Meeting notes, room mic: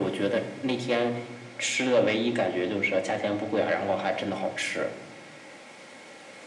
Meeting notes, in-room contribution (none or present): none